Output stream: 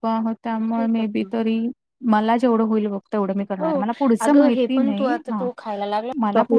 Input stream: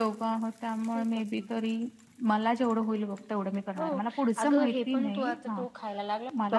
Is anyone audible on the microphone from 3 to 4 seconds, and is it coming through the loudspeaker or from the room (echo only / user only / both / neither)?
echo only